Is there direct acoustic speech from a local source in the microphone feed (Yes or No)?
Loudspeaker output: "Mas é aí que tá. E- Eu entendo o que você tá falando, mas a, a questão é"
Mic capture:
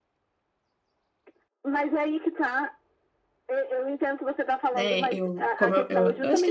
Yes